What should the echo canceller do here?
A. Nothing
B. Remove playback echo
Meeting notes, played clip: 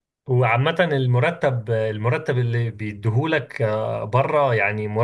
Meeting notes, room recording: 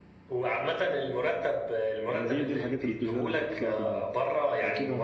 B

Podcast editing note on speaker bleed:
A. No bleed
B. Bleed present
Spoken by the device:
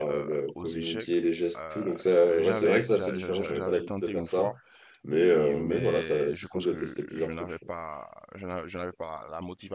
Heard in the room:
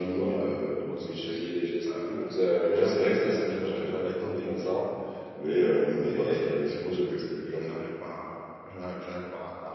B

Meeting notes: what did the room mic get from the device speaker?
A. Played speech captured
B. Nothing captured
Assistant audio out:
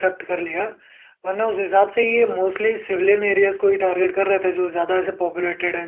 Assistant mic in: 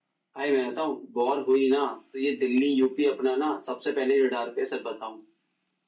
B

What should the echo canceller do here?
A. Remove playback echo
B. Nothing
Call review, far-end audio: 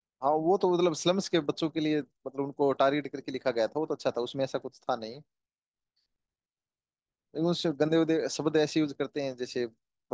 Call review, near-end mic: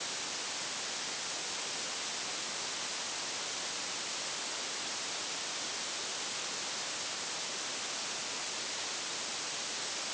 B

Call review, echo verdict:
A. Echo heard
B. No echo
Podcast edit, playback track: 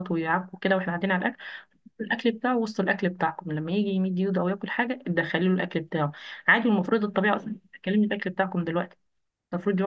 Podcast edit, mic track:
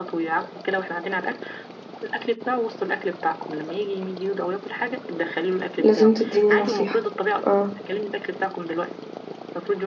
A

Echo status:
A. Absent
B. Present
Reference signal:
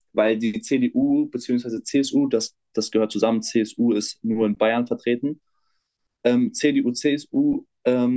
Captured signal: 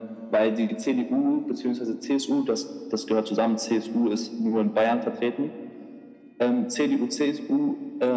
B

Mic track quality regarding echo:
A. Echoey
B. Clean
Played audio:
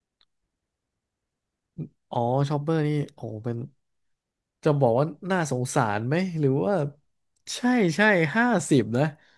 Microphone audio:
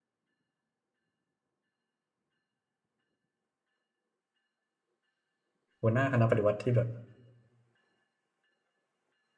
B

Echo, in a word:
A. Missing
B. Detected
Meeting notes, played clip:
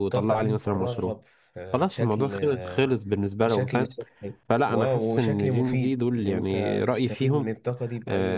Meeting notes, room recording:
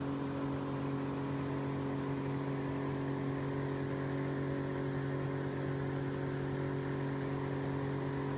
A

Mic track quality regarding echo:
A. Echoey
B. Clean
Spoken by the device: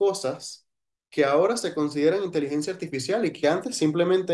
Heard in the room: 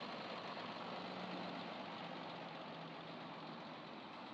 B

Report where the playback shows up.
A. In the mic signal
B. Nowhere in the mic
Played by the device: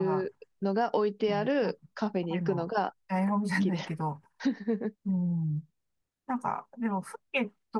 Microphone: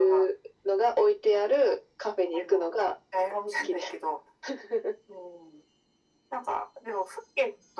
A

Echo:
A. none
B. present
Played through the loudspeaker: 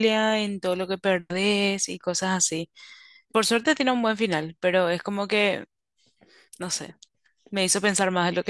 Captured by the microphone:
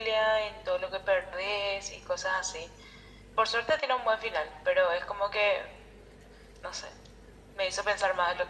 B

